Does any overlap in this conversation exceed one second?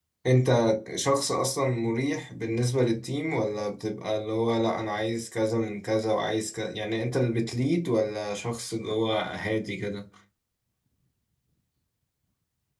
No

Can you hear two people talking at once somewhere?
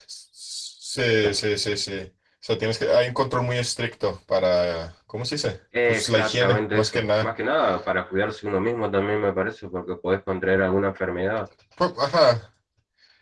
Yes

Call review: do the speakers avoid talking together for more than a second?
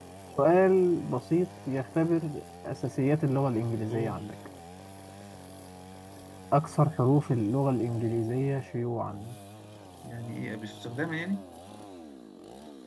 Yes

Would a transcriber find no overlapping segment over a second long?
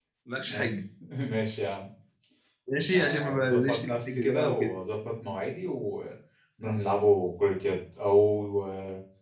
No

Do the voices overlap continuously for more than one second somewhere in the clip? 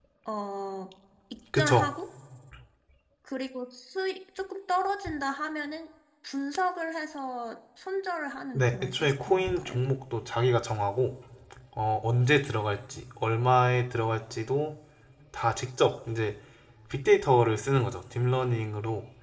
Yes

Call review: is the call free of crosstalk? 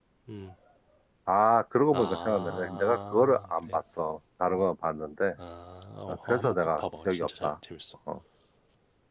No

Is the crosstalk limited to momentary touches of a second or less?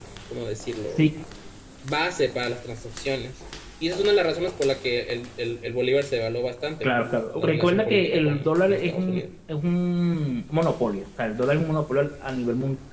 No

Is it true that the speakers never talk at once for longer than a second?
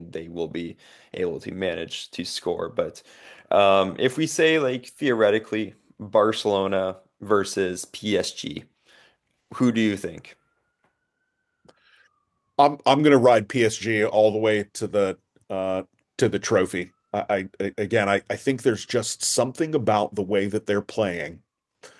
Yes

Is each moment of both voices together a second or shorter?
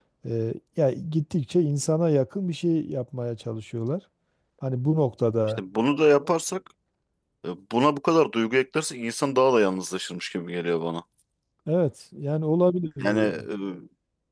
Yes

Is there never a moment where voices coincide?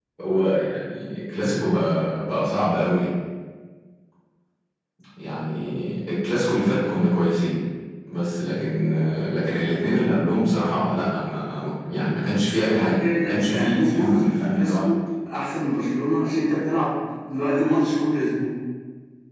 No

